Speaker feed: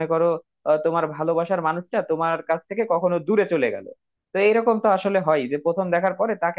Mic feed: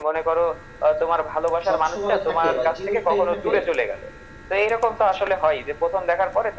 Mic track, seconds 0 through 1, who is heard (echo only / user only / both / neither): echo only